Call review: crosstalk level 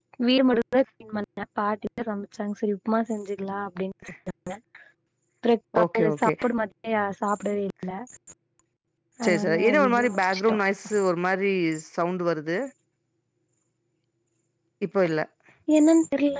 present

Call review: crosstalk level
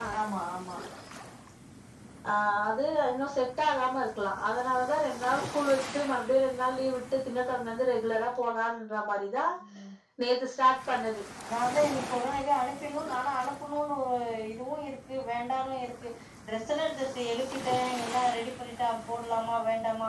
none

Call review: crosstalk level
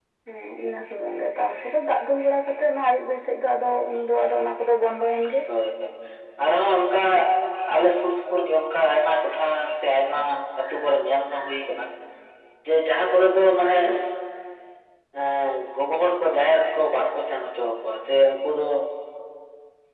none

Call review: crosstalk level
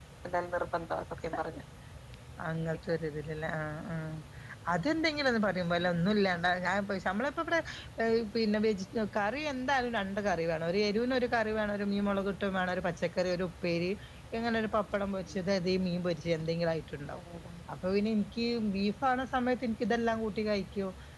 none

